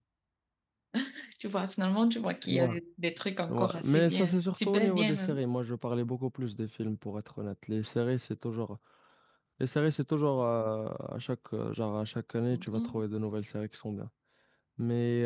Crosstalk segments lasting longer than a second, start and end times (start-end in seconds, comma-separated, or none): 3.5-5.4